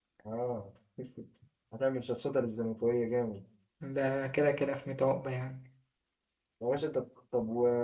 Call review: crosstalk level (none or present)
none